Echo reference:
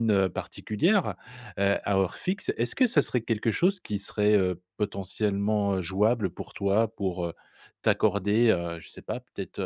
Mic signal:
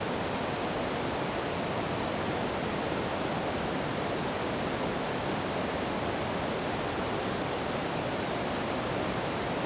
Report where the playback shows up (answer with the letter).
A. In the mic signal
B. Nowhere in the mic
B